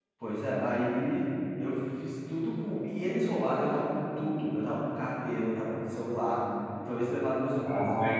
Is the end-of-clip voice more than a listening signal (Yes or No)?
Yes